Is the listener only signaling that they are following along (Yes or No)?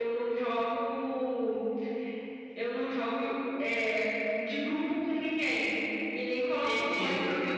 Yes